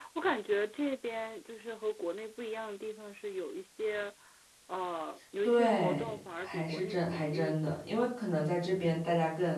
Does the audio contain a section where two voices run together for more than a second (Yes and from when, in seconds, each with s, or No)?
Yes, from 5.4 s